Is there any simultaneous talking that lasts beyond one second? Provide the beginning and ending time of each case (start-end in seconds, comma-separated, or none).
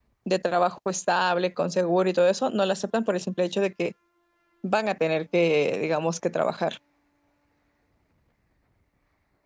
none